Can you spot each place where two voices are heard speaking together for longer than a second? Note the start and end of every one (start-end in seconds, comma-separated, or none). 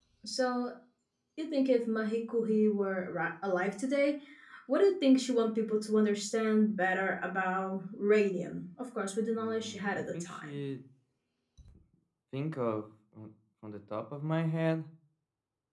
9.4-10.6